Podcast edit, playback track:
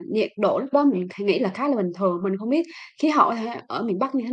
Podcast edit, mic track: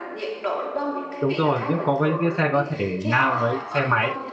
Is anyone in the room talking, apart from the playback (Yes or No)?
Yes